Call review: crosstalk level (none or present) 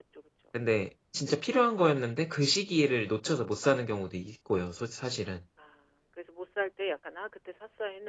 none